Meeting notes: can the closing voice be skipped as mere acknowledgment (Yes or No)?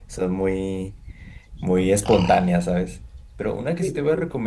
Yes